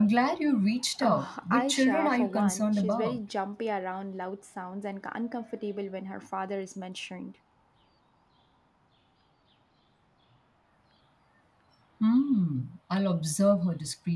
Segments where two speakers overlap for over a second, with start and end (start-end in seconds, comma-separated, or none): 1.0-3.2